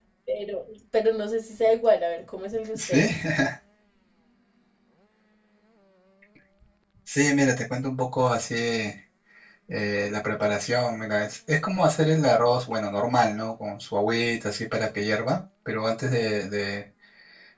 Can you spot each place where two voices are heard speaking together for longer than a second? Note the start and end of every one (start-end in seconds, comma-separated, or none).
none